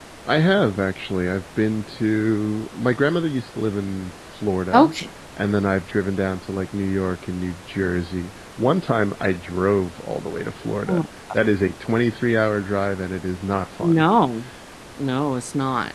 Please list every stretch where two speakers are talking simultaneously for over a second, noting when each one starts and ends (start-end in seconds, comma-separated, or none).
none